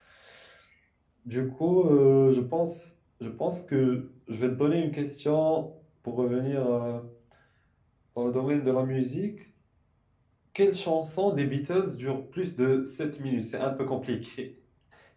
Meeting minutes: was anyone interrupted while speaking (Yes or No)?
No